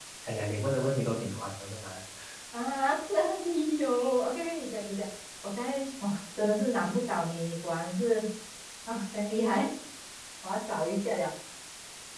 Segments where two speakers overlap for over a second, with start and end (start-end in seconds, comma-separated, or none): none